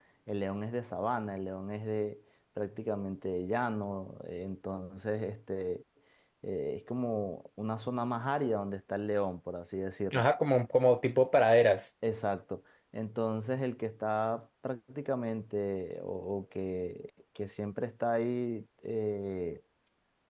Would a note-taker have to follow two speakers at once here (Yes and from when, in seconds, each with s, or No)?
No